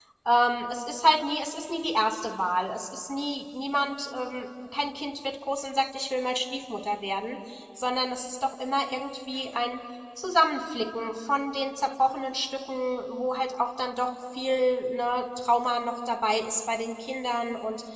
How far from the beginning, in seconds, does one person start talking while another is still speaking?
none

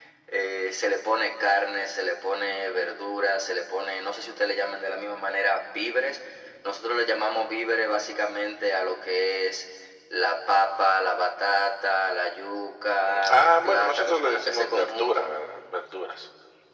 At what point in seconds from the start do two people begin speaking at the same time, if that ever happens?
12.9 s

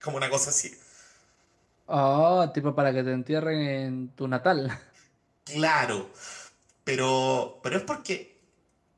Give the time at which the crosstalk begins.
none

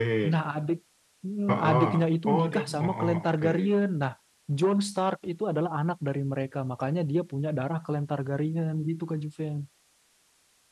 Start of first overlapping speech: 1.5 s

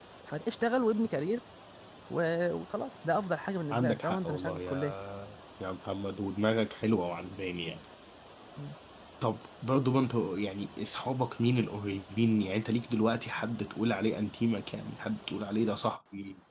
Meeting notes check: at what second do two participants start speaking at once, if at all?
3.7 s

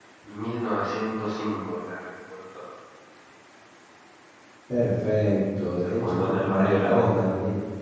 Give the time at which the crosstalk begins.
5.8 s

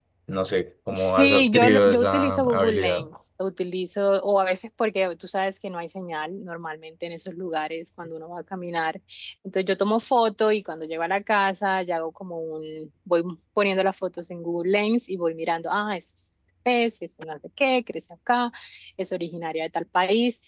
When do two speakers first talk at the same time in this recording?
0.9 s

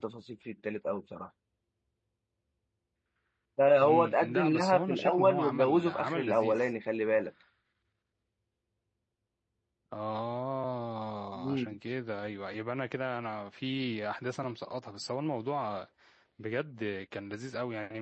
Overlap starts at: 3.8 s

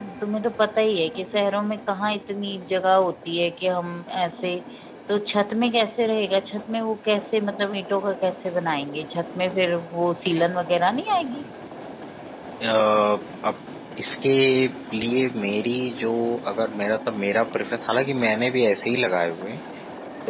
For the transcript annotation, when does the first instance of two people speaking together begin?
none

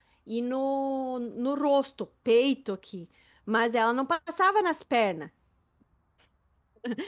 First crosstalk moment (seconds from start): none

